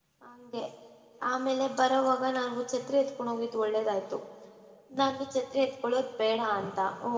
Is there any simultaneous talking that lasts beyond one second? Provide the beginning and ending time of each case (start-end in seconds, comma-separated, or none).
none